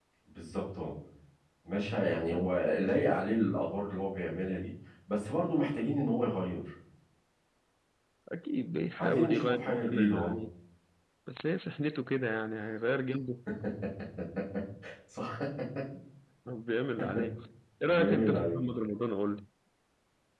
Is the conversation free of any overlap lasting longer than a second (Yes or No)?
No